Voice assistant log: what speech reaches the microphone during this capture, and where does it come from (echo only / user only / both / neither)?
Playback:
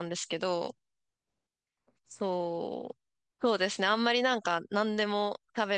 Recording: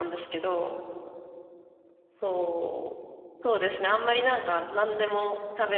echo only